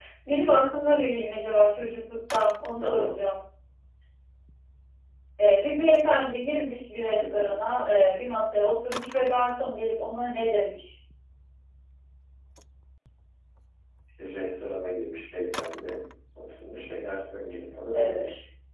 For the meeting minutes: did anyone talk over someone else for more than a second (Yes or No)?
No